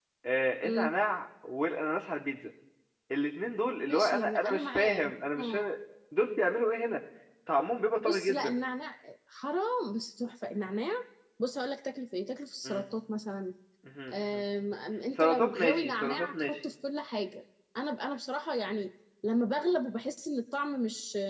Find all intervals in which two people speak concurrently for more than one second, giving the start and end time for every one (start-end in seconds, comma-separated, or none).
3.9-5.7, 15.2-16.6